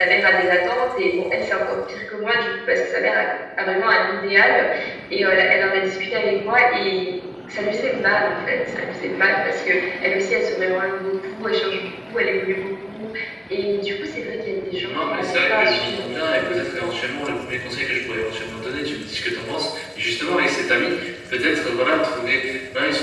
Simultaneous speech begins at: 14.8 s

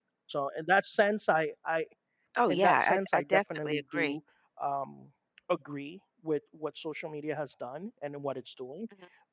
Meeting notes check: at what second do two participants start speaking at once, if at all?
2.5 s

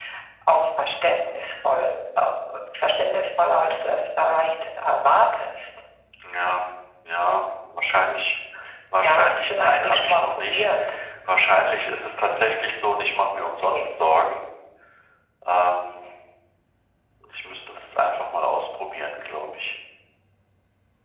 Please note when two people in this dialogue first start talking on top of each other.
9.0 s

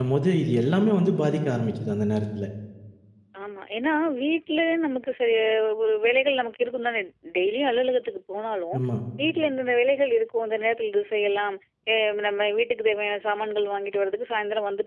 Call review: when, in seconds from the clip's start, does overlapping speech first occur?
none

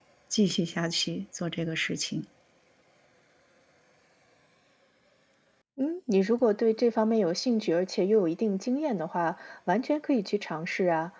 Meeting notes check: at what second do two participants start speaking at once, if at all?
none

